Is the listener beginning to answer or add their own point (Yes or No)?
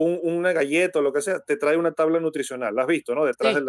Yes